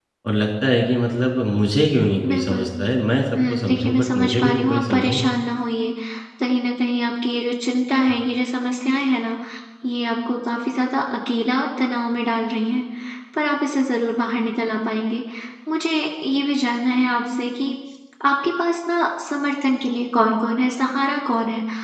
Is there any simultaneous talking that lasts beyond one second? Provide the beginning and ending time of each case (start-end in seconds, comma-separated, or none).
3.4-5.2